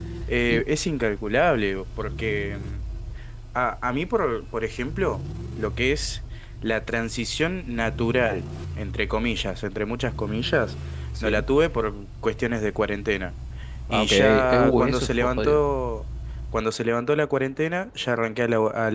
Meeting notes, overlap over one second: present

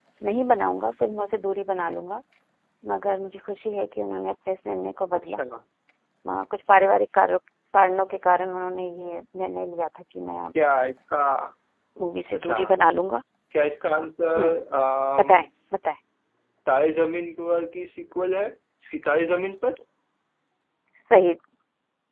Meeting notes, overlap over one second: none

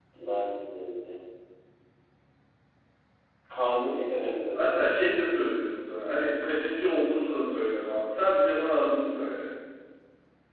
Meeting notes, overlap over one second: none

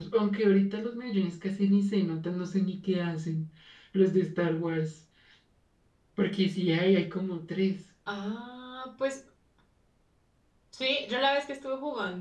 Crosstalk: none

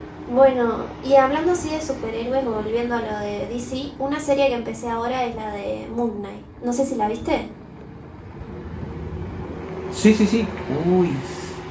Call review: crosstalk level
none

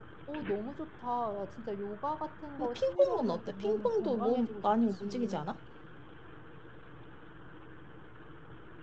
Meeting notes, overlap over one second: present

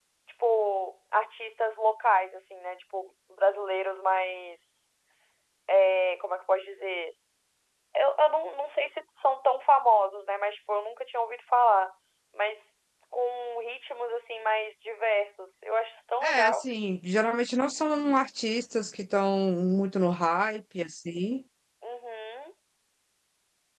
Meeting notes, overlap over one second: none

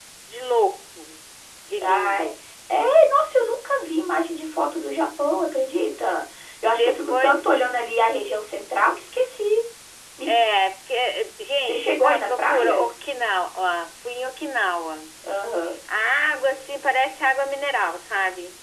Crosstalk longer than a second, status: present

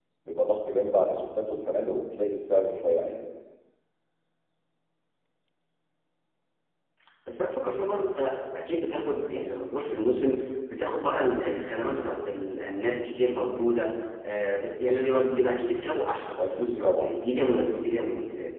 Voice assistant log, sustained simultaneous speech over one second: present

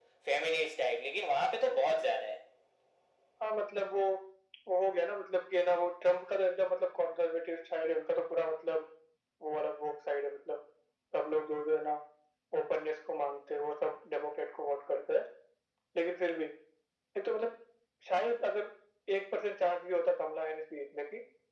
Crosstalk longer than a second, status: none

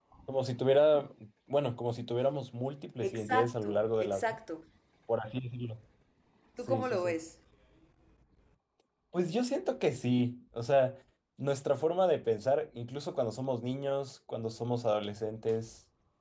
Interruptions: present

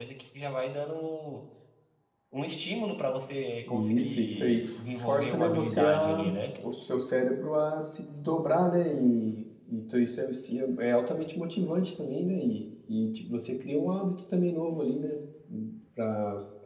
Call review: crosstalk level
present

